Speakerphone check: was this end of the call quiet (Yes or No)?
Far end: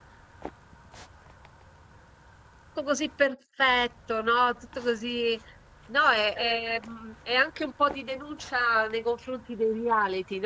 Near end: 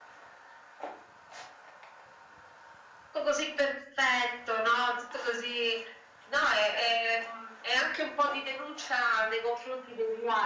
Yes